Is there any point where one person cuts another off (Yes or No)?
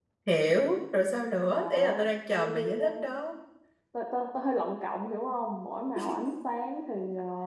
Yes